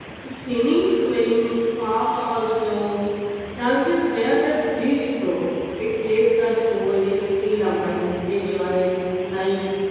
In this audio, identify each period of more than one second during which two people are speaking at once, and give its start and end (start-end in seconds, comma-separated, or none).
none